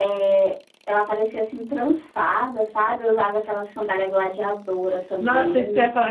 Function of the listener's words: taking over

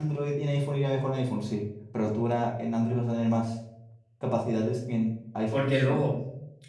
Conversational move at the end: taking over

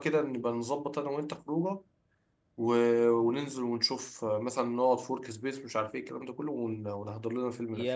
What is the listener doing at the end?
taking over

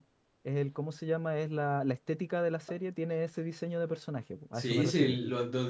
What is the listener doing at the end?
taking over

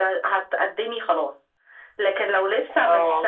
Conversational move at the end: listening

